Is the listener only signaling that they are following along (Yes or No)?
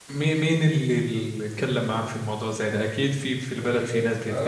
No